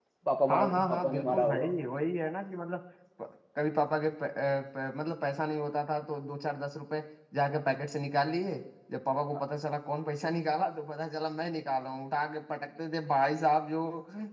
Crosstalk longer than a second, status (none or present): present